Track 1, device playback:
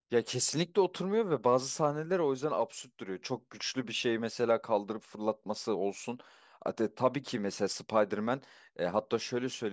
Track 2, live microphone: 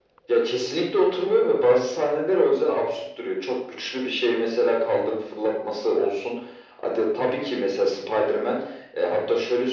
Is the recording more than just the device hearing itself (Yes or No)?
No